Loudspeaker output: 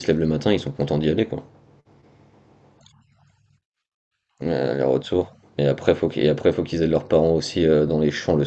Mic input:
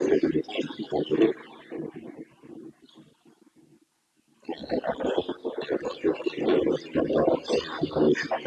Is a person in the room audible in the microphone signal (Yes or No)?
No